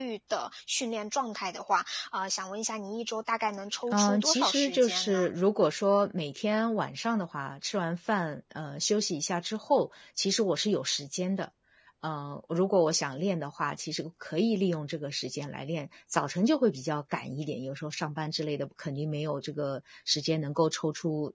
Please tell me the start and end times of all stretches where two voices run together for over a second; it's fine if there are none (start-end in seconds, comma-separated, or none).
3.9-5.3